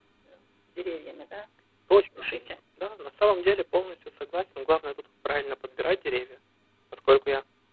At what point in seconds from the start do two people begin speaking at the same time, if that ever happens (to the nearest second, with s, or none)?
none